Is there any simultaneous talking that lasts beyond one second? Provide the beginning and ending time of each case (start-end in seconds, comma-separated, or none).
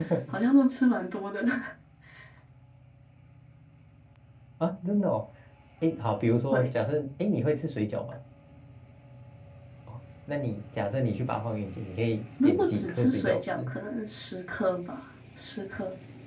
12.4-13.7